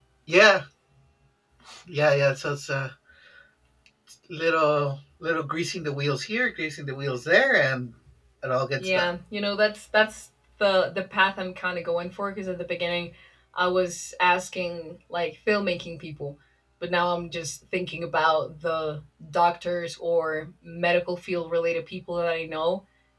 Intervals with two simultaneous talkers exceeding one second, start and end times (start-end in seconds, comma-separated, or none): none